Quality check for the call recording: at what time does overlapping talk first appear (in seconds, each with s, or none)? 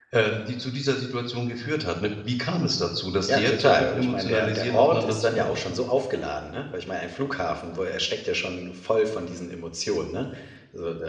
3.2 s